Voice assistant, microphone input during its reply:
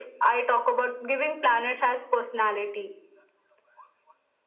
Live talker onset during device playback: none

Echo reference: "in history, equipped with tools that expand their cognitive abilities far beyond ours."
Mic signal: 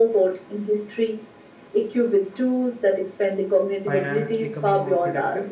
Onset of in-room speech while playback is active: 4 s

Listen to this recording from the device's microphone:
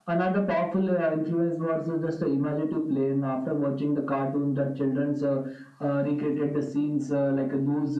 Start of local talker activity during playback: none

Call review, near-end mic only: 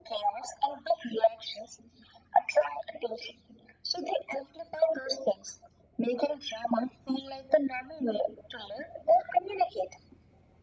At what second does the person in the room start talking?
none

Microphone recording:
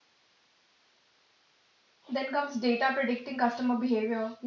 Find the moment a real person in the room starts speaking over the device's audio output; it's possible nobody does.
2 s

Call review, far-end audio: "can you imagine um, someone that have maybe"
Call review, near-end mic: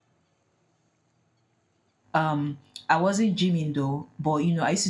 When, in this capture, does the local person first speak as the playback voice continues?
2 s

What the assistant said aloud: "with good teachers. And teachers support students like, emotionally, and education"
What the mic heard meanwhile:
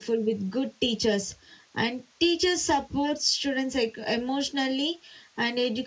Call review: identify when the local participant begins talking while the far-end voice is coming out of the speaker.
none

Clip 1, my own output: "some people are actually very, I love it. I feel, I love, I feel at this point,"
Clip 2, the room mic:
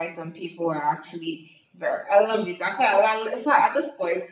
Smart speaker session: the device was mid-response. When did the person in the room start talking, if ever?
none

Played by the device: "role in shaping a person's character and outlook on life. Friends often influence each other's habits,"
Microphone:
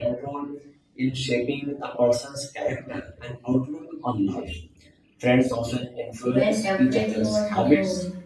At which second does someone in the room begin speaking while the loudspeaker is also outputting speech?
6 s

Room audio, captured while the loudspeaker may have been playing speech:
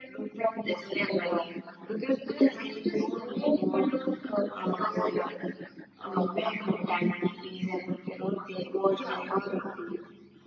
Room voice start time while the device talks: none

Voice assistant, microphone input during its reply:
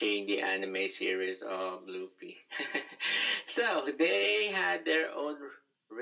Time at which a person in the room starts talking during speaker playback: none

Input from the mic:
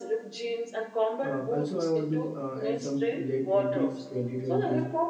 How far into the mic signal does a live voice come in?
1 s

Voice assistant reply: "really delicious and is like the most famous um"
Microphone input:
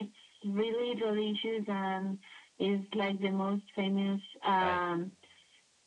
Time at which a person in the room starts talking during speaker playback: 5 s

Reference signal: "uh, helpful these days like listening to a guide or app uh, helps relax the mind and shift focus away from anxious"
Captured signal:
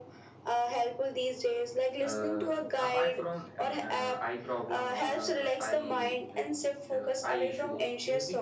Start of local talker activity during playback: 2 s

